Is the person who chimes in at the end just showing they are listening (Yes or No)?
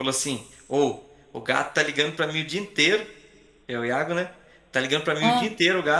Yes